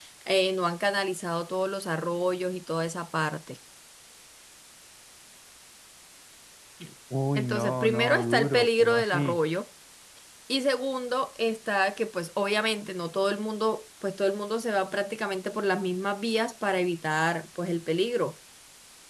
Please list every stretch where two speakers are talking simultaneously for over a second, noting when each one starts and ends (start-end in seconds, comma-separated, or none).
7.3-9.4